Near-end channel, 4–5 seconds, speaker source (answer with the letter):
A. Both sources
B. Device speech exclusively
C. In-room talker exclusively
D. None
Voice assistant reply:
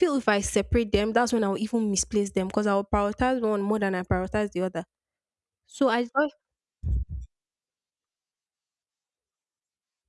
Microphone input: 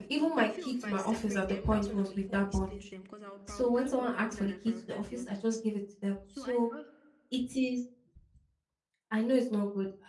A